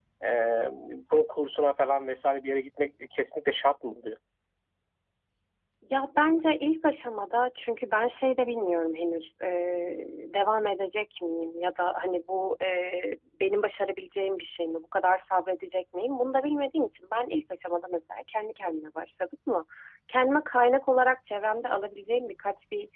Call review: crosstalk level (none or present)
none